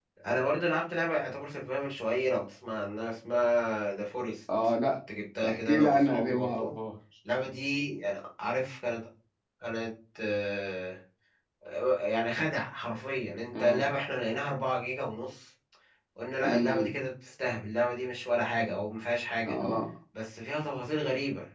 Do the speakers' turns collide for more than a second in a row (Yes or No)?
Yes